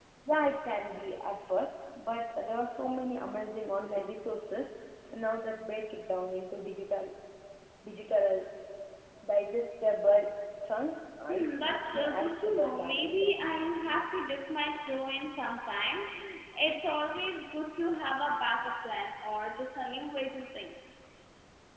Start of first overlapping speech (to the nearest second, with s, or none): 11 s